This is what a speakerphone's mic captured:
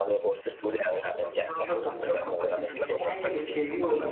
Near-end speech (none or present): present